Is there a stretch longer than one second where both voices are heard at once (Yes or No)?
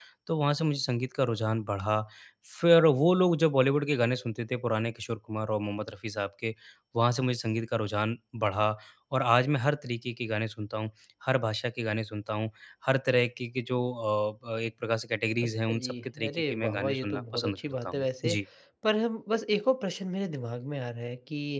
Yes